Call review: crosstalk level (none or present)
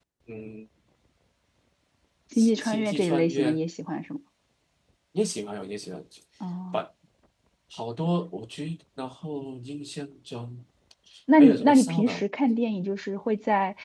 present